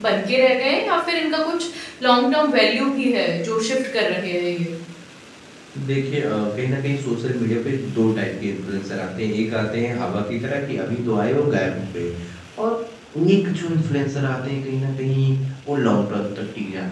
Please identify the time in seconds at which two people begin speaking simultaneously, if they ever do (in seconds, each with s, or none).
none